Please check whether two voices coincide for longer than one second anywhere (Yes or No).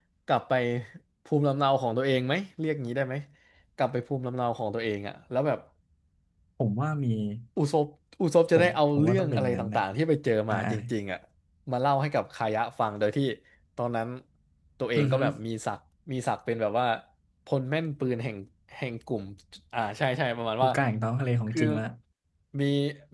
Yes